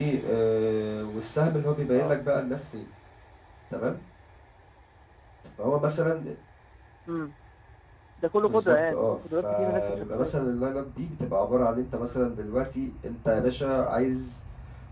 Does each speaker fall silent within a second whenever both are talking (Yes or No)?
No